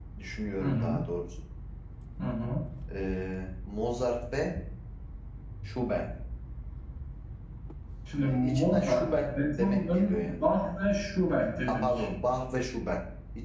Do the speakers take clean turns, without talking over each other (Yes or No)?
No